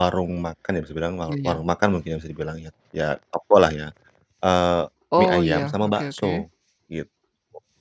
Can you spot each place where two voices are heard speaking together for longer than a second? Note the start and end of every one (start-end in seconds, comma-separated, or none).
5.2-6.4